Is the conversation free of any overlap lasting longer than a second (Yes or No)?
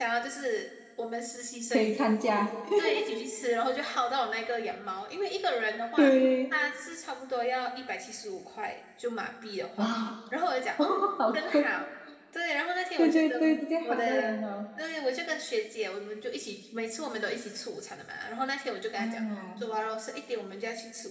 No